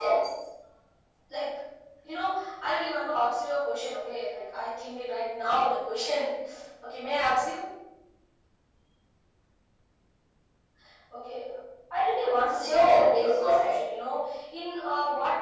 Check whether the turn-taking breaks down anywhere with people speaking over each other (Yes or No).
Yes